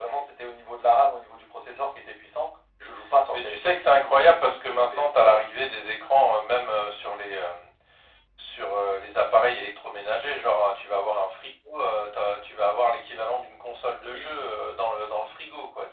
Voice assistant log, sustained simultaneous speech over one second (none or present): present